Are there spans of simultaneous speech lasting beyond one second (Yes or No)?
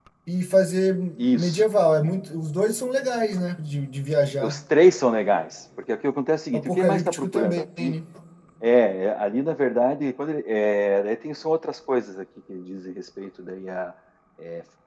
Yes